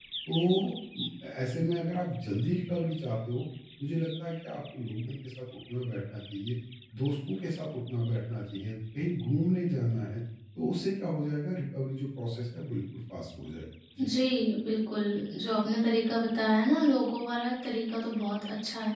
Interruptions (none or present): none